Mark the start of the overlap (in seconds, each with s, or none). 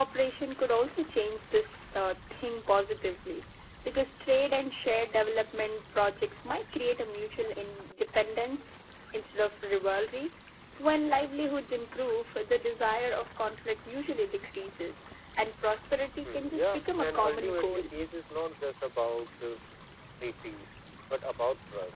16.2 s